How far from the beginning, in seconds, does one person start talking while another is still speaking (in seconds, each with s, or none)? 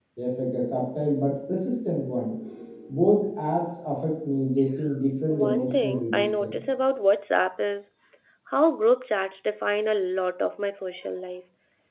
5.3 s